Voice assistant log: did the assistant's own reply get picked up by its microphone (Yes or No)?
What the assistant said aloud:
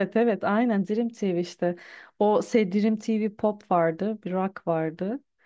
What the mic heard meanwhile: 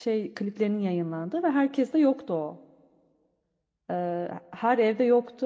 No